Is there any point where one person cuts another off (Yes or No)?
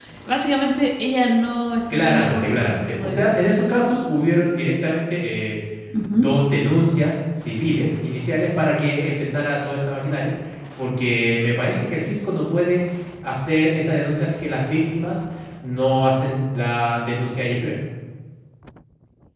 Yes